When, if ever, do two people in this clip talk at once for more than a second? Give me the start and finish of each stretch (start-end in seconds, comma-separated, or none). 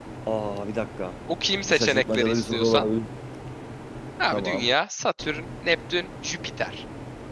1.6-2.8